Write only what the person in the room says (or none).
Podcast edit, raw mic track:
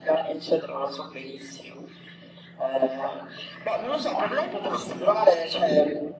none